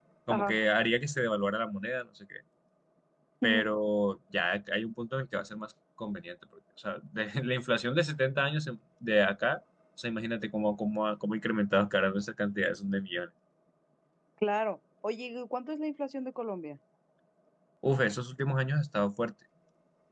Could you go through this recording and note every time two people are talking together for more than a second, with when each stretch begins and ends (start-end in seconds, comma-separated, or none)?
none